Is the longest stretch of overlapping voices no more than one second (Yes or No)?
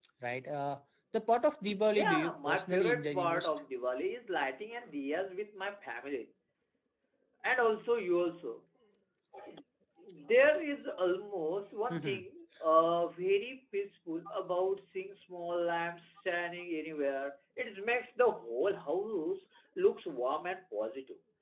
No